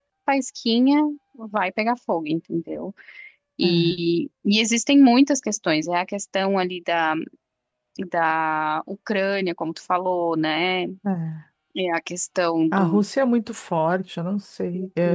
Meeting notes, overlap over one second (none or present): none